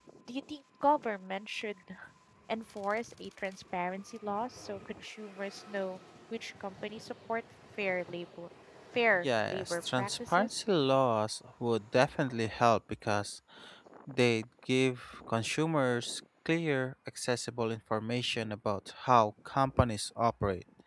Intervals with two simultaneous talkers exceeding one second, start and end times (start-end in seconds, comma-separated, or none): 9.2-10.5